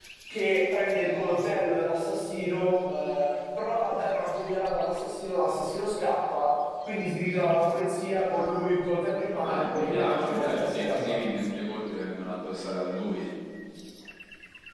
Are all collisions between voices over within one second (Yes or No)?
No